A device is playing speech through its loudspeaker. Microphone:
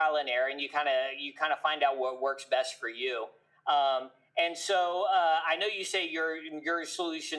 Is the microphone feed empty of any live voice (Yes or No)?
Yes